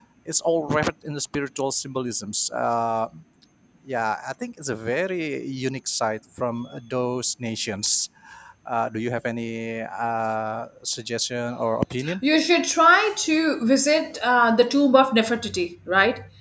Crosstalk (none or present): none